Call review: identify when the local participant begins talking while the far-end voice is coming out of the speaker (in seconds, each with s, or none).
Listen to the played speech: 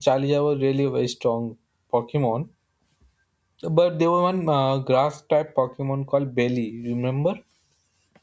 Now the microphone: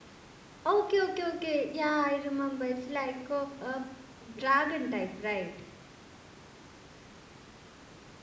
0.6 s